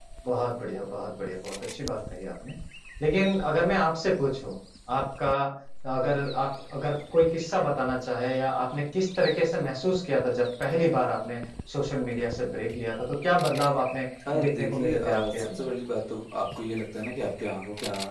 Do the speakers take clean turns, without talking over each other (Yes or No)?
No